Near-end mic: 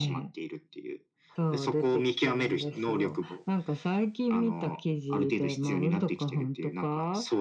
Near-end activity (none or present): none